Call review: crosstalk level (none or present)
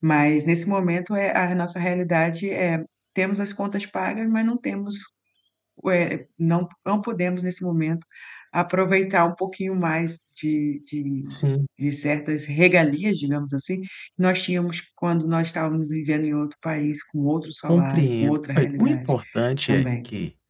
present